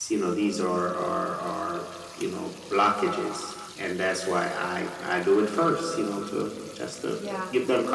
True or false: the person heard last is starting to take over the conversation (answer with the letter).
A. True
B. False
A